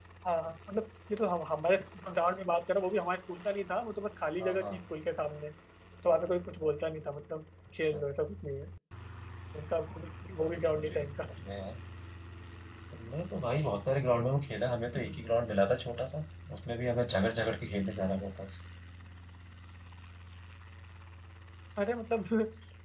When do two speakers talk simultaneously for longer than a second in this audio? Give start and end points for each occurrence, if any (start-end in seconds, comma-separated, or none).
none